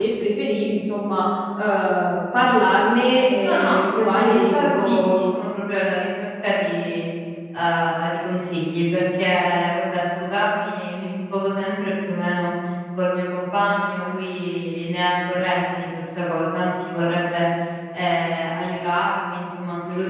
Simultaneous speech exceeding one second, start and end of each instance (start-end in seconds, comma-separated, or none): 3.4-5.2